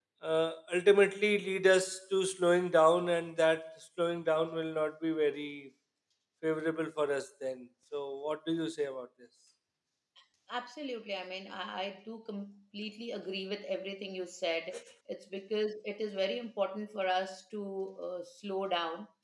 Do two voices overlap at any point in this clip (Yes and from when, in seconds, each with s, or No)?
No